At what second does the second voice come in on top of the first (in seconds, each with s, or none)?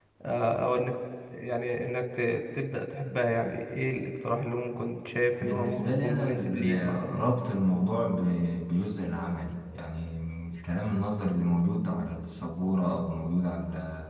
5.4 s